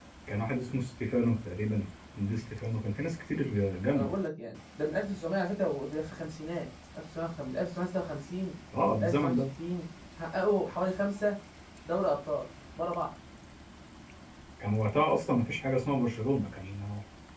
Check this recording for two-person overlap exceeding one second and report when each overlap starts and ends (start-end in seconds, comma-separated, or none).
none